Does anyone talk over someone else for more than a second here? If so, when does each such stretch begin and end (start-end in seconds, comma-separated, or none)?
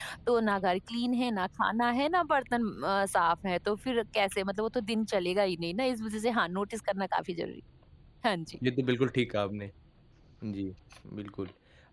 none